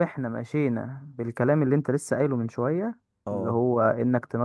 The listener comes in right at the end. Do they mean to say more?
No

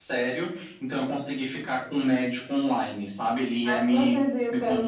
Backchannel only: No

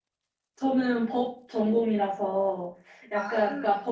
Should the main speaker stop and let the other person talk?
No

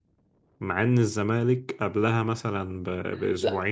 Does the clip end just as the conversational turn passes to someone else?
Yes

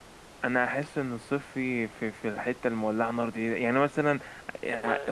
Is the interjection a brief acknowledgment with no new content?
Yes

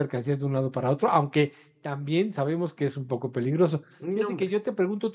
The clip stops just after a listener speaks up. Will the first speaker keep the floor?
Yes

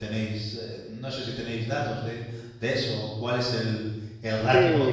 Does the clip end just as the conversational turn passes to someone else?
Yes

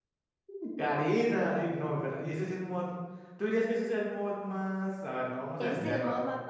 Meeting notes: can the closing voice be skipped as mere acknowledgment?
No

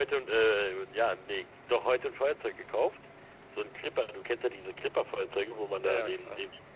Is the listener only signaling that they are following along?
Yes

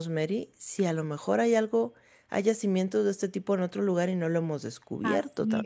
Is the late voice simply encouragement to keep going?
No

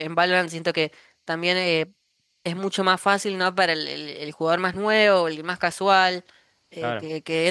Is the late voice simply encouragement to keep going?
Yes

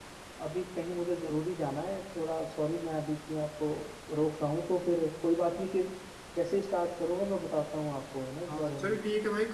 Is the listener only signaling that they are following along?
No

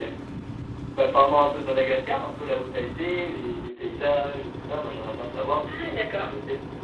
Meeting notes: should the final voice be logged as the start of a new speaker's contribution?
Yes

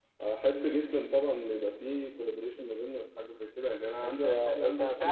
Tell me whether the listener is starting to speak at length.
Yes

